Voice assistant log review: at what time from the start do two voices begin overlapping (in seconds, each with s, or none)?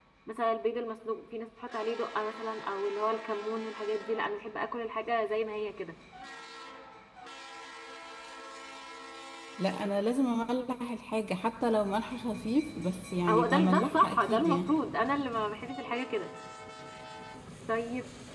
13.3 s